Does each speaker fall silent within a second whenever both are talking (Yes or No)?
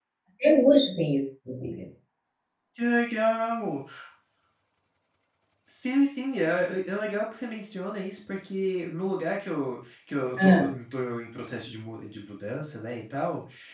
Yes